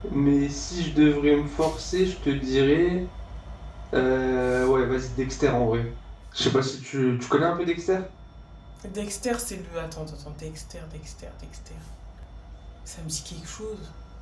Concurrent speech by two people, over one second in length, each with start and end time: none

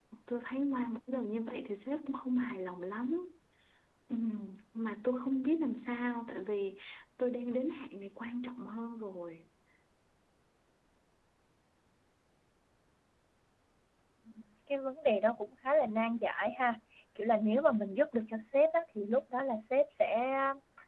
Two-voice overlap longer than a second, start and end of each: none

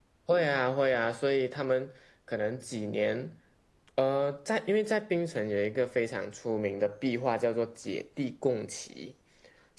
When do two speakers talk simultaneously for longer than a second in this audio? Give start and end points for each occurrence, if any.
none

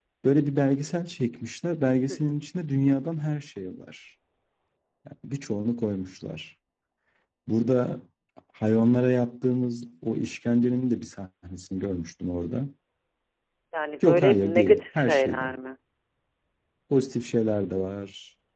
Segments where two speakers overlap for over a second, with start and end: 14.0-15.5

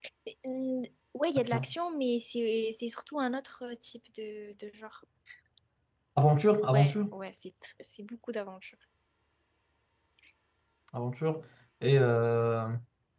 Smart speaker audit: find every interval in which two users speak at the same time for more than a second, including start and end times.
none

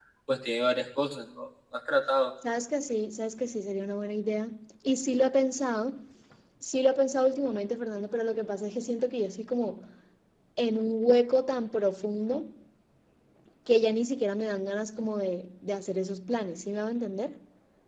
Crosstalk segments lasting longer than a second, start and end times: none

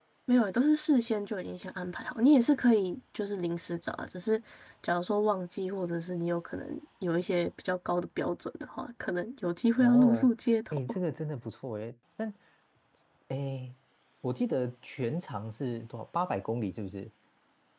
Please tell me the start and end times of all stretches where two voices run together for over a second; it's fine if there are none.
none

